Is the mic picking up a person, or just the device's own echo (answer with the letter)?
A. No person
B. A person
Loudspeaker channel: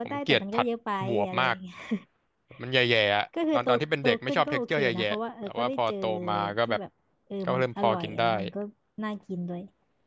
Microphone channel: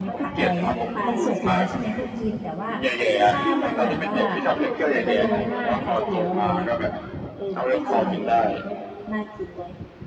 B